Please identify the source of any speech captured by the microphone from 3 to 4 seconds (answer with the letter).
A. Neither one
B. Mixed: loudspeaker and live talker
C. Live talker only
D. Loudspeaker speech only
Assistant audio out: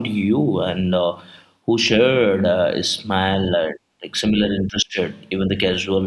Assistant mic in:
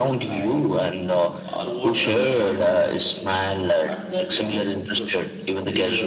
B